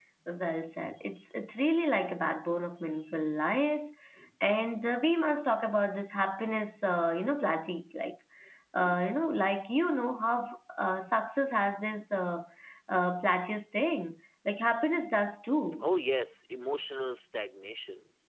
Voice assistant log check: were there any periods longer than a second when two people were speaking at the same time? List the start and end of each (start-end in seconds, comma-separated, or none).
none